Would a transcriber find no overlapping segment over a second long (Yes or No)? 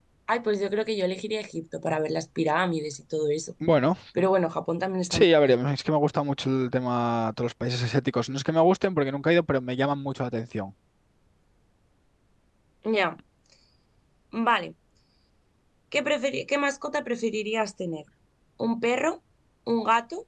Yes